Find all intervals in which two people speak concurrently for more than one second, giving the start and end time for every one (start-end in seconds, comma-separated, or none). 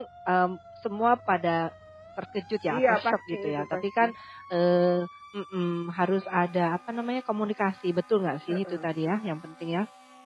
2.7-4.0